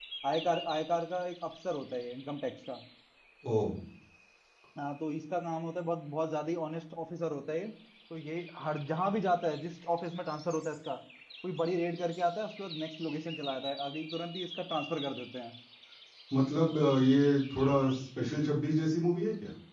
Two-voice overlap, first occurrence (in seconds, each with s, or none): none